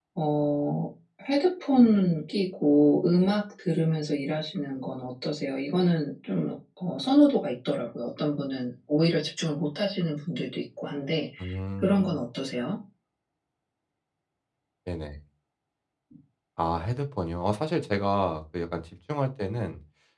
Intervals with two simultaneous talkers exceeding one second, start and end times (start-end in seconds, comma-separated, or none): none